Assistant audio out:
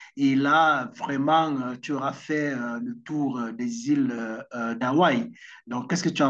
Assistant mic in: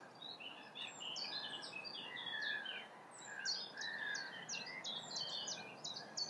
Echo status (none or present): none